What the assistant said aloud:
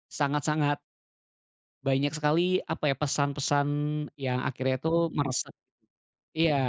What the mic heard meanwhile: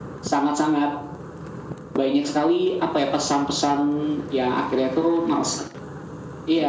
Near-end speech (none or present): none